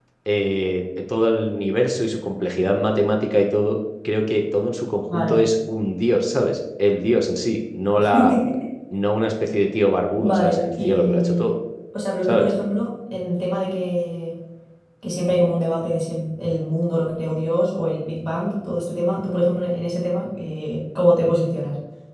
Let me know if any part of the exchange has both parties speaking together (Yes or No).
Yes